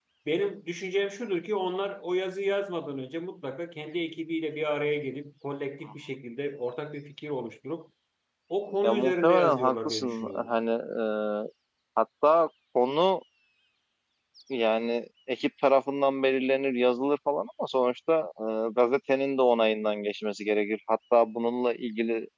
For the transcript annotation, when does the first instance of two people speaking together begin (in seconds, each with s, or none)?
8.8 s